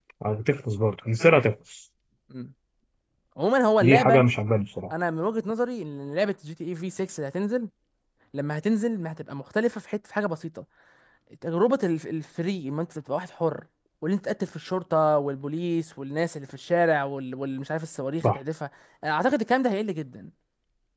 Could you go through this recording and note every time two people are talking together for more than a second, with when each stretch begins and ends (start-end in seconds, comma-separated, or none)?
none